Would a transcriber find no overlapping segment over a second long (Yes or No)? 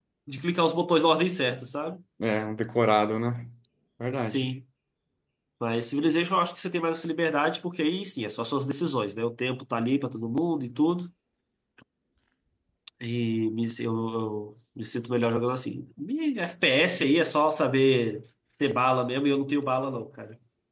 Yes